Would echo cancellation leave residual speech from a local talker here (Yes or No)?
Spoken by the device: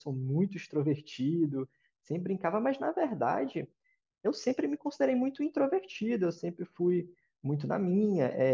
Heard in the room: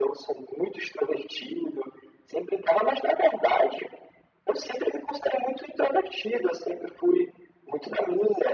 No